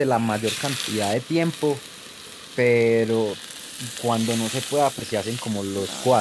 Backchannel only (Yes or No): Yes